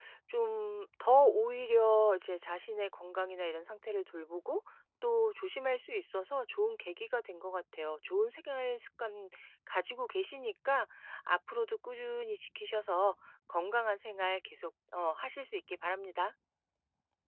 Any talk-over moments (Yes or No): No